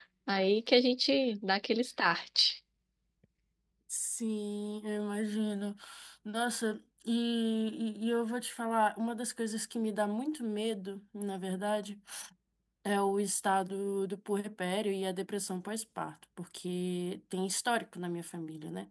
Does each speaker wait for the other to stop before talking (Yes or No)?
Yes